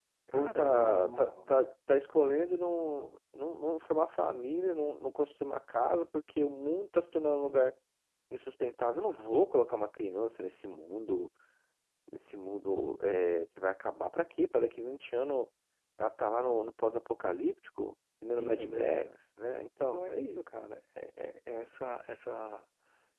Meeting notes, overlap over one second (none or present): present